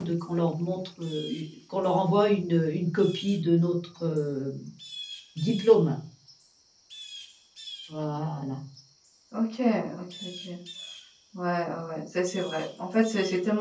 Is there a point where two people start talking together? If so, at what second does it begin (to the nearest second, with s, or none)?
none